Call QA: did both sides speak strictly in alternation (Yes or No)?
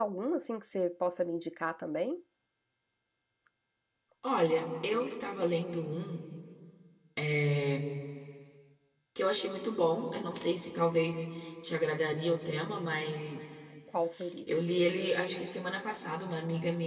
Yes